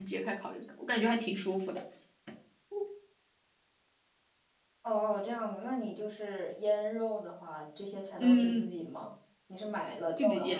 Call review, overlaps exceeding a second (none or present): none